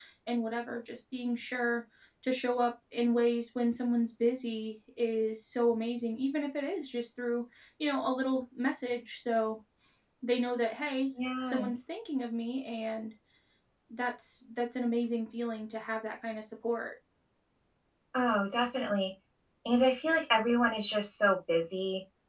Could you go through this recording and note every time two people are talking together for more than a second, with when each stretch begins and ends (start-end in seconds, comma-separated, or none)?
none